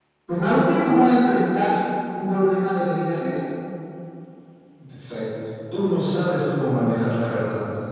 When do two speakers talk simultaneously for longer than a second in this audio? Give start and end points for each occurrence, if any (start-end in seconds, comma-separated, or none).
none